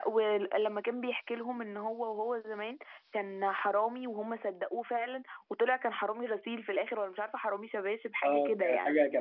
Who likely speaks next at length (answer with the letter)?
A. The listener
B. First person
A